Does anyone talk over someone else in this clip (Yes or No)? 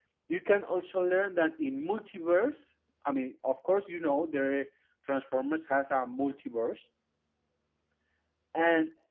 No